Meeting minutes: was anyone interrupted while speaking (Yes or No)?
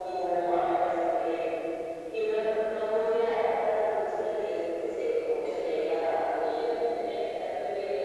No